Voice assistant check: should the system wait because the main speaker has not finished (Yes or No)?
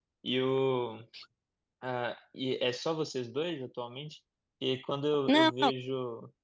Yes